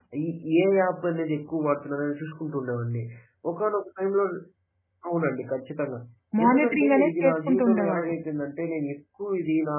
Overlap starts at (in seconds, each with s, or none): 6.4 s